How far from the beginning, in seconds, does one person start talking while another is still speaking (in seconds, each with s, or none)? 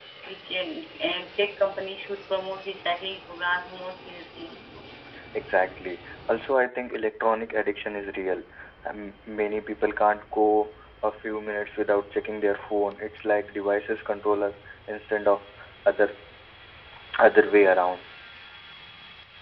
none